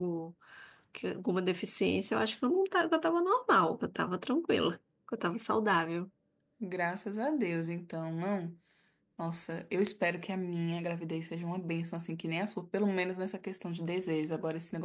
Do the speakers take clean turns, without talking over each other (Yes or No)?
Yes